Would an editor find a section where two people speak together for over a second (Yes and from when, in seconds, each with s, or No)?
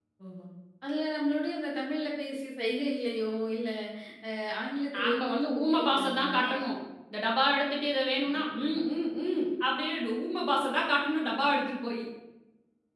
Yes, from 5.0 s